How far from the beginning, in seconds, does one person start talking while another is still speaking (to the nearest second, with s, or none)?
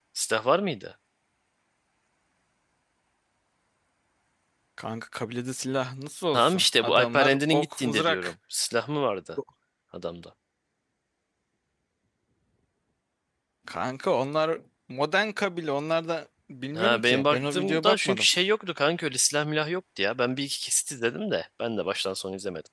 6 s